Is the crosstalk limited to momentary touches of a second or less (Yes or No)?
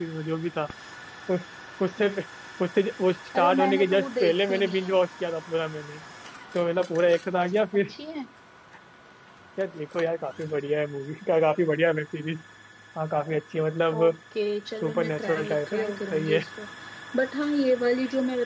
No